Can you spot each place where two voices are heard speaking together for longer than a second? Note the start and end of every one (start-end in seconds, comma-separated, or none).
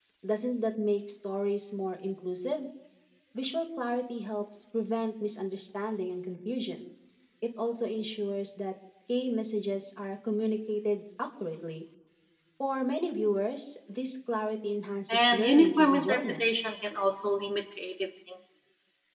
15.1-16.5